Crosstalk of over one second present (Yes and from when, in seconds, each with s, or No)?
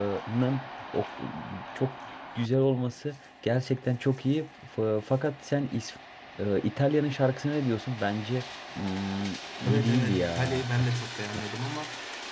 Yes, from 9.7 s